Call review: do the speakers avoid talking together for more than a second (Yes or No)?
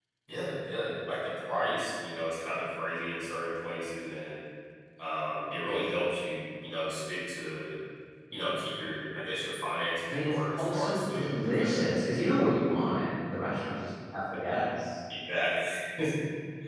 No